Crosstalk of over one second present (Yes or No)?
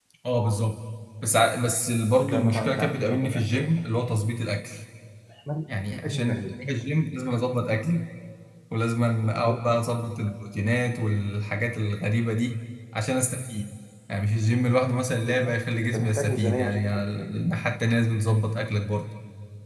Yes